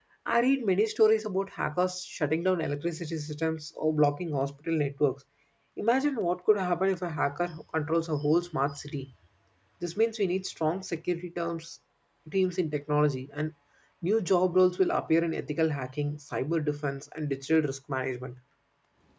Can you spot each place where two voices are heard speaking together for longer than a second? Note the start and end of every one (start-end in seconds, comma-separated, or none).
none